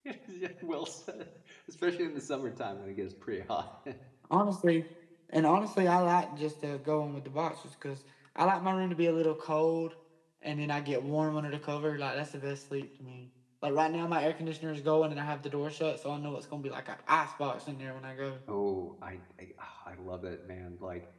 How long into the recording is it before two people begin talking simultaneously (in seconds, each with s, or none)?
none